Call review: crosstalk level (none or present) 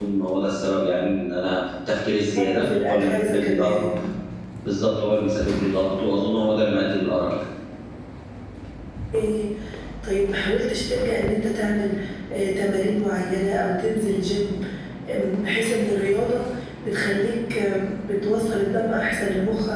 present